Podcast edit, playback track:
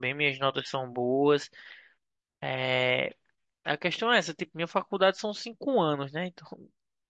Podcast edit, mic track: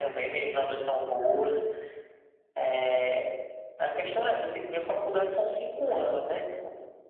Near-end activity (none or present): none